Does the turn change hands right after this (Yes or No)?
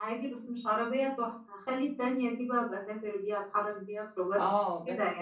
Yes